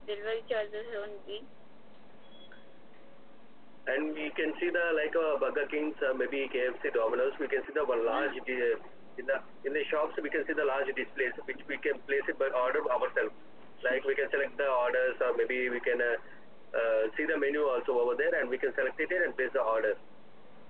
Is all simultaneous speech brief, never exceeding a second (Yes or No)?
Yes